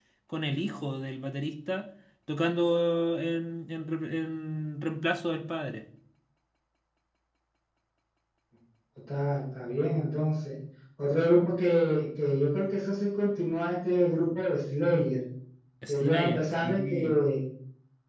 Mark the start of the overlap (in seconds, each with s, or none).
15.9 s